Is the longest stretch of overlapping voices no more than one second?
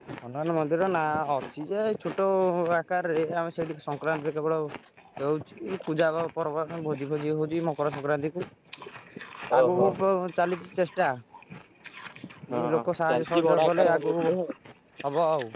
No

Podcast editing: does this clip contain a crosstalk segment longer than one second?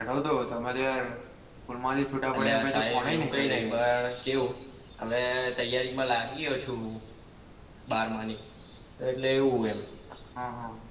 Yes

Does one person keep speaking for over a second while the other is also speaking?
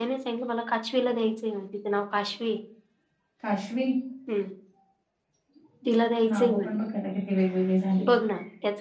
No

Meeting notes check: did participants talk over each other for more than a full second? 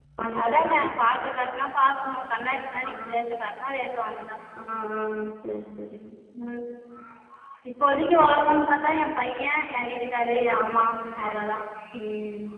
No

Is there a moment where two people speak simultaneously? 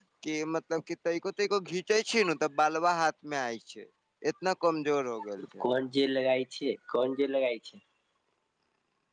No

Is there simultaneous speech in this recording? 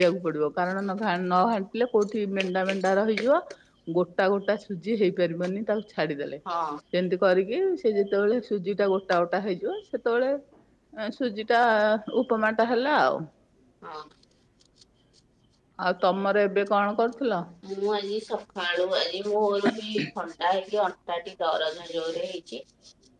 No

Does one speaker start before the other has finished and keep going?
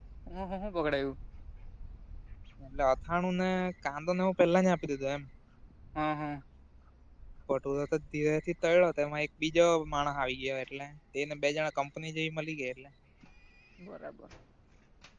No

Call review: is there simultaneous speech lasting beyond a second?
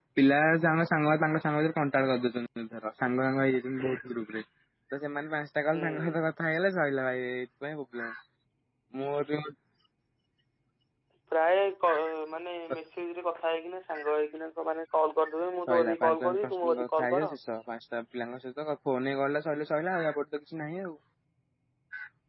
Yes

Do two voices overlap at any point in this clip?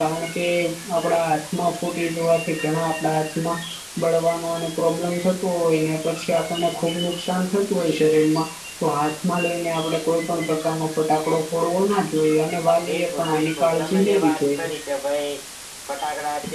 Yes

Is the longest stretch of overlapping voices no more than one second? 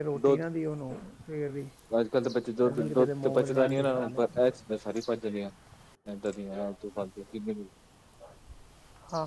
No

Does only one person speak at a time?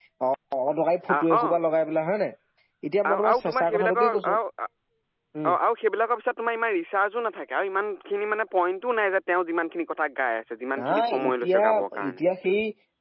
No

